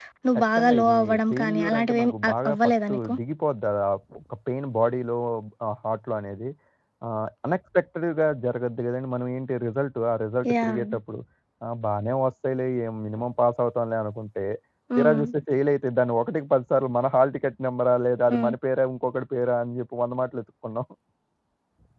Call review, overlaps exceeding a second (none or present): present